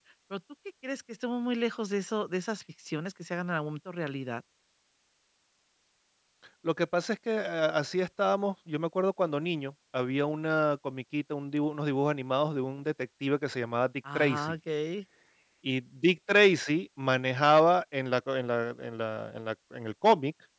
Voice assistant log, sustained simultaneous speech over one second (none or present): none